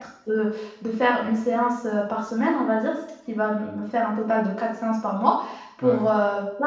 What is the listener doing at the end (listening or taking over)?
listening